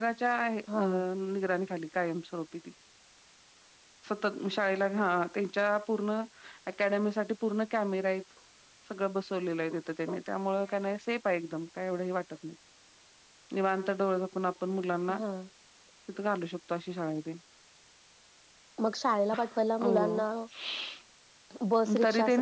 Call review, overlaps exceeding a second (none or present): none